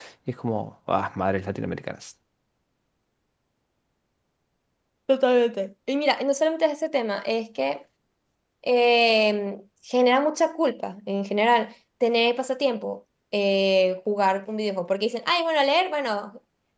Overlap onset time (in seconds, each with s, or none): none